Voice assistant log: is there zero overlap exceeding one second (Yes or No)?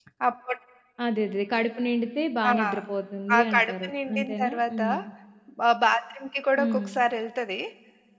No